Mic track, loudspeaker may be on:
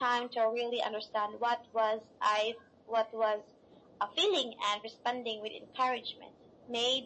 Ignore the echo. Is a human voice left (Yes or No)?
No